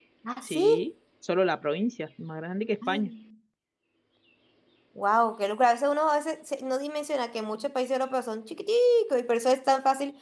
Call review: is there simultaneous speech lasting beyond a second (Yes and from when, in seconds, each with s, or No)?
No